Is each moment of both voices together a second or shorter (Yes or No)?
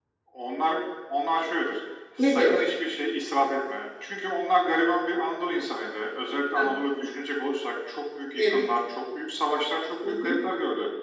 Yes